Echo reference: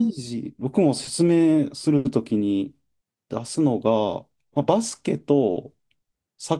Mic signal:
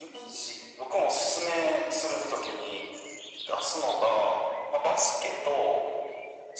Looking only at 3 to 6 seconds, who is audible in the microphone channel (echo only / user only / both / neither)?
echo only